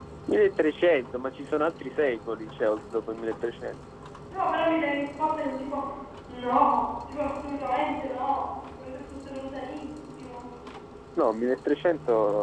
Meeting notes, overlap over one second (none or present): none